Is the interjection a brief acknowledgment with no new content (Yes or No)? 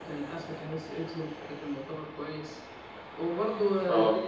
Yes